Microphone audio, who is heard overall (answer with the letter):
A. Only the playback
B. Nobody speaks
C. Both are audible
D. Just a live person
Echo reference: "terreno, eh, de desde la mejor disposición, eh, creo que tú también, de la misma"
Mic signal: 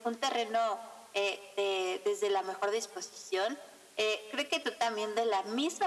A